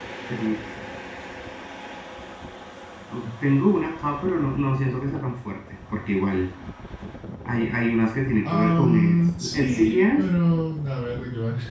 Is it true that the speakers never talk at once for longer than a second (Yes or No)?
No